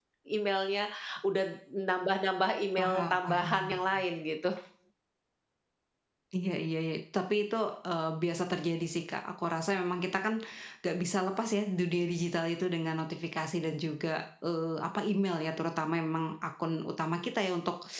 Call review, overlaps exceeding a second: present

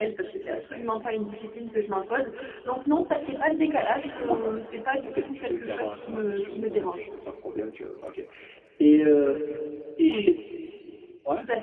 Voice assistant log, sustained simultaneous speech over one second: present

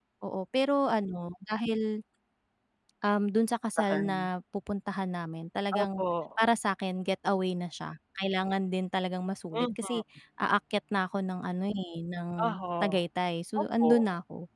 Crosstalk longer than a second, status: none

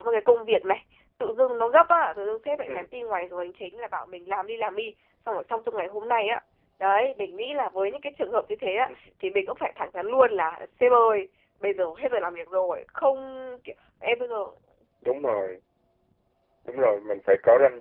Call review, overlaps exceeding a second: none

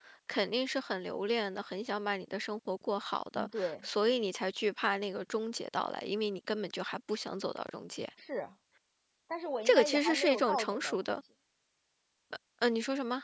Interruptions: present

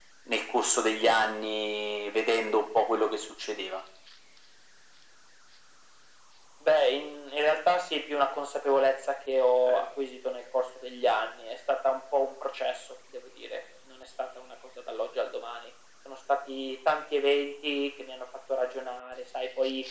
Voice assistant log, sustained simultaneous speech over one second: none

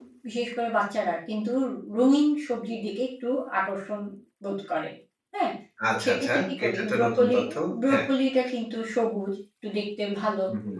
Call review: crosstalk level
present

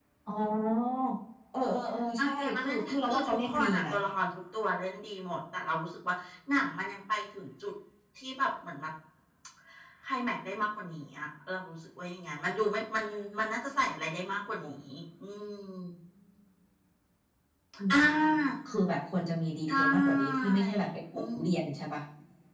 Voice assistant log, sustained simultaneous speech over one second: present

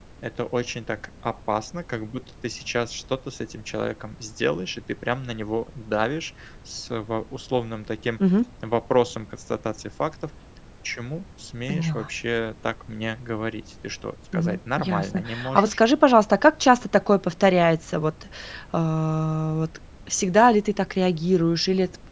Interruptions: present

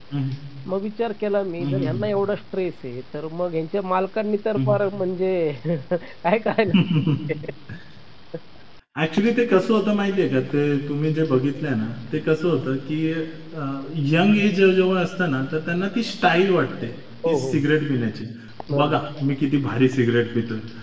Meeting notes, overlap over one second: none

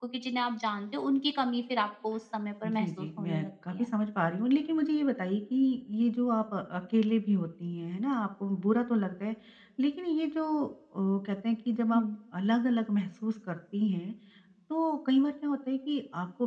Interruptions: present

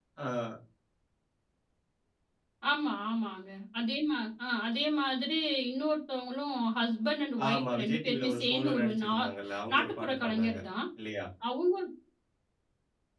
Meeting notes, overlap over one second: present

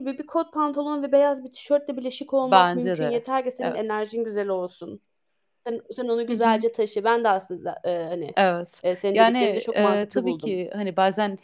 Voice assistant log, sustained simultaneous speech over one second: present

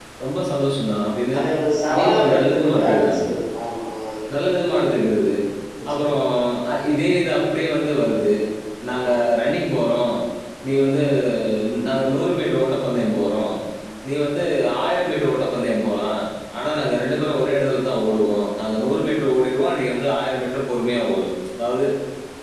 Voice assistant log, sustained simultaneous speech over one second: present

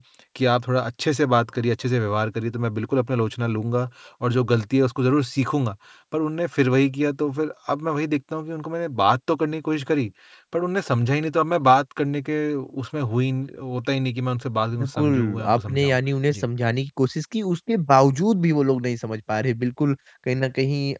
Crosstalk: present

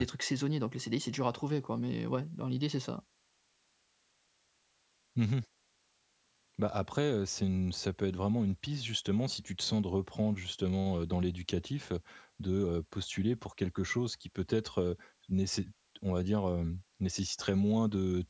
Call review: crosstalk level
none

